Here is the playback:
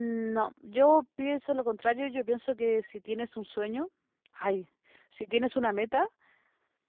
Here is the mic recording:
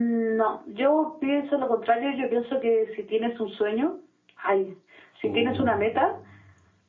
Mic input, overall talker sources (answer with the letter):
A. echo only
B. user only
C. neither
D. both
D